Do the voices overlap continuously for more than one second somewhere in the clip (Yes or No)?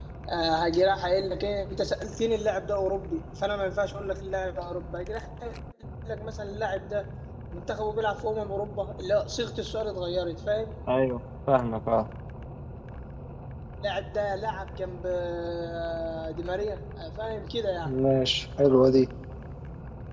No